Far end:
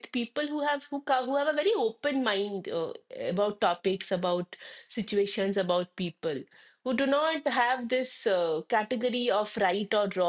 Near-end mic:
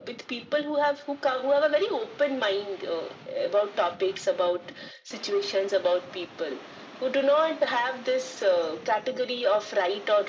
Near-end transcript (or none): none